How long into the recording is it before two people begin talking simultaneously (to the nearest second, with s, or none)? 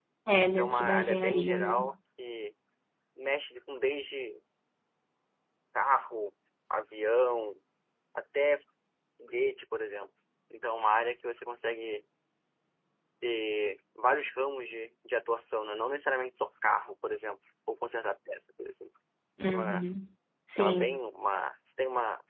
1 s